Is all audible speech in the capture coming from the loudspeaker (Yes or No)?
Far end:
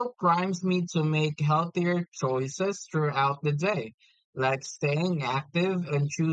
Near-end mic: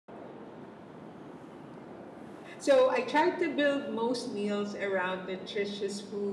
No